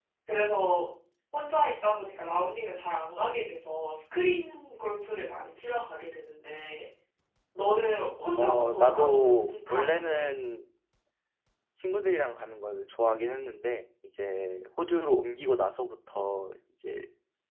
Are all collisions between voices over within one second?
No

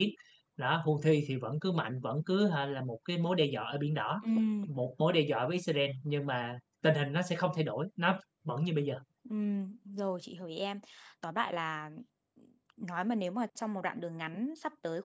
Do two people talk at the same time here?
No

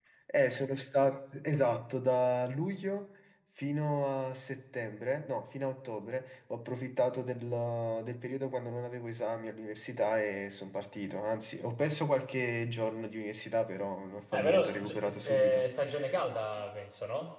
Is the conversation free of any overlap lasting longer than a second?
No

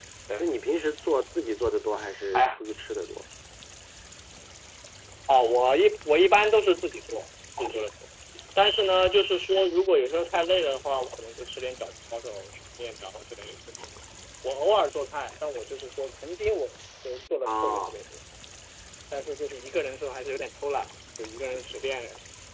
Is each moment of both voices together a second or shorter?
Yes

